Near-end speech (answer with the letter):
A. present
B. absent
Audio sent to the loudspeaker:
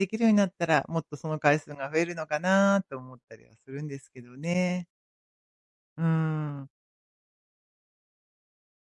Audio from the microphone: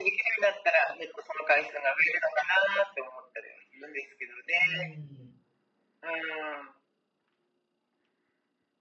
A